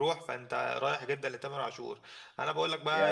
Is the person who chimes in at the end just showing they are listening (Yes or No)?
No